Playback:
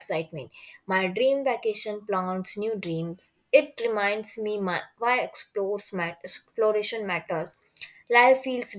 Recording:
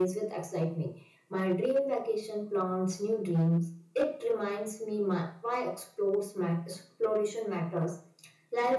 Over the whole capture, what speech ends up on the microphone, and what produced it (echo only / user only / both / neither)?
echo only